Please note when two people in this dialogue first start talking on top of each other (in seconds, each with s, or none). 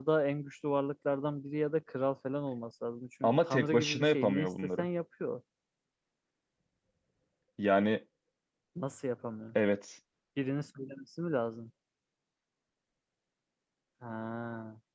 3.2 s